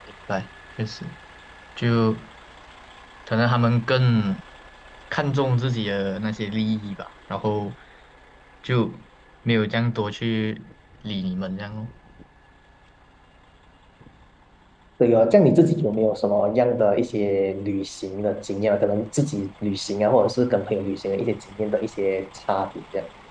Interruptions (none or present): none